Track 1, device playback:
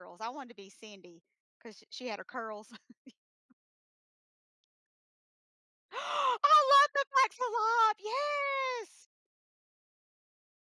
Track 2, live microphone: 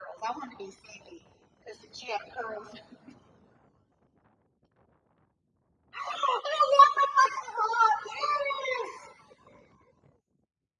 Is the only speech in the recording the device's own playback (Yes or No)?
Yes